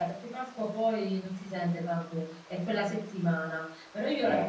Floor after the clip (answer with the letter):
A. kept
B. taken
A